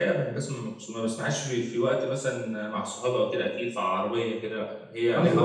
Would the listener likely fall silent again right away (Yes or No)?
No